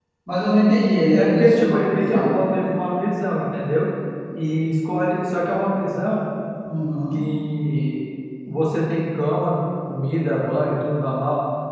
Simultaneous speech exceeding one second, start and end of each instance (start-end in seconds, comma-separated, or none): 1.1-2.4